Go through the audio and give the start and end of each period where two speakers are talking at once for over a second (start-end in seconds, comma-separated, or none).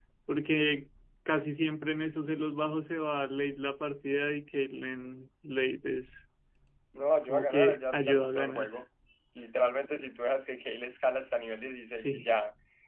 7.2-8.7